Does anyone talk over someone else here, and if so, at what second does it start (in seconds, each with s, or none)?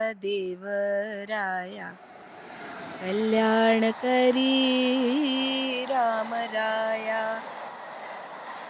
none